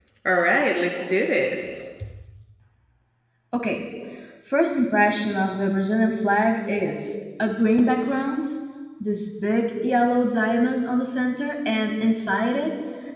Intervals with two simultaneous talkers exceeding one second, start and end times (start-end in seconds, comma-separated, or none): none